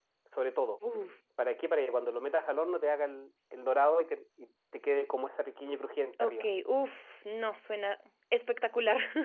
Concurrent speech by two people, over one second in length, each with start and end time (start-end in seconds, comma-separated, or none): none